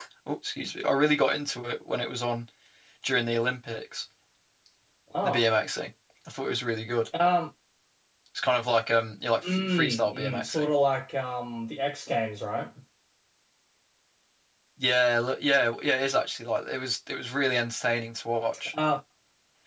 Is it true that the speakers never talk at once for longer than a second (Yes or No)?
No